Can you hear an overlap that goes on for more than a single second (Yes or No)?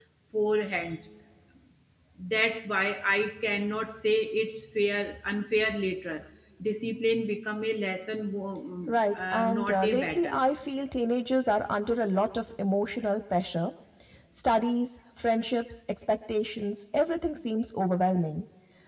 Yes